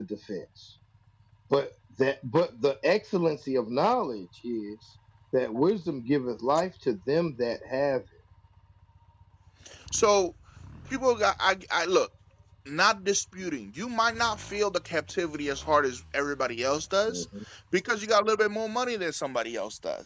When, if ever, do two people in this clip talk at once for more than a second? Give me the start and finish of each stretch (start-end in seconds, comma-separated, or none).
none